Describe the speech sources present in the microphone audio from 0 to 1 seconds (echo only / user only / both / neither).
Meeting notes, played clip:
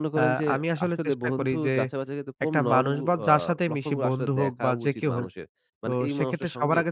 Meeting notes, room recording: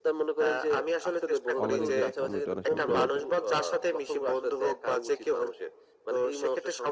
echo only